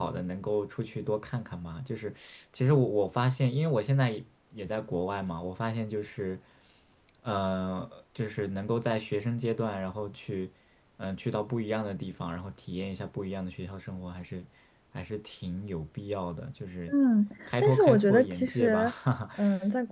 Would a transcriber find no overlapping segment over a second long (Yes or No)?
No